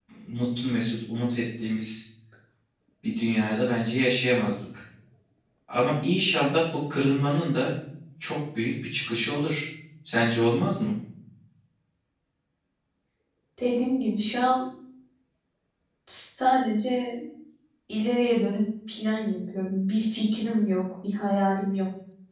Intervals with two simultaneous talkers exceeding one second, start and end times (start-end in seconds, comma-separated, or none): none